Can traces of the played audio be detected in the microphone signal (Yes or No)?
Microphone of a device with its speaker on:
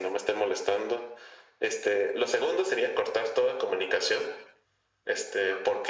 Yes